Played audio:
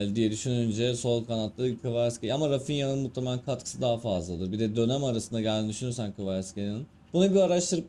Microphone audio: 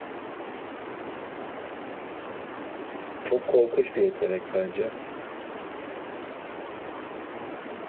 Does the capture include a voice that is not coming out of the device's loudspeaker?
Yes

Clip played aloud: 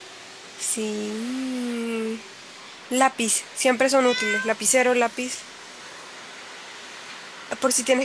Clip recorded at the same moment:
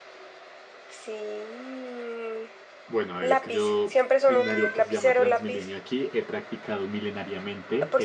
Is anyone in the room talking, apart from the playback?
Yes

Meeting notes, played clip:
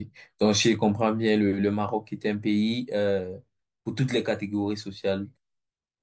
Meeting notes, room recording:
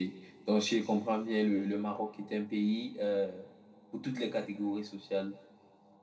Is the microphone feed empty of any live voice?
Yes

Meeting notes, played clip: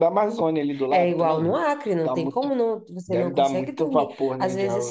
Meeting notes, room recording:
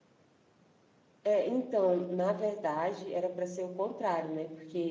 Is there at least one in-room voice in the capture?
Yes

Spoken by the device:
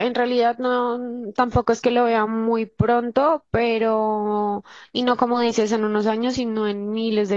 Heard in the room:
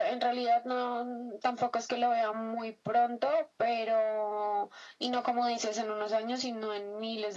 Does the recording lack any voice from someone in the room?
Yes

